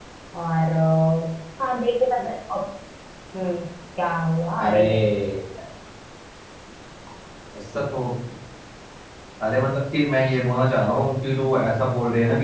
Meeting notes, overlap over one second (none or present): none